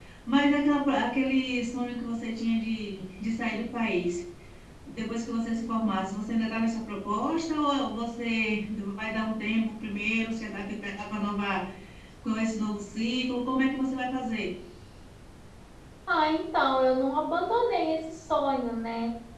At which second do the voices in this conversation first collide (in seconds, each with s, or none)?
none